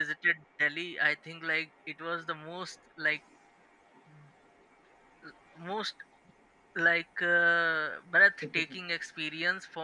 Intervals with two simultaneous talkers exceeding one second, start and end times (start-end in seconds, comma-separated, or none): none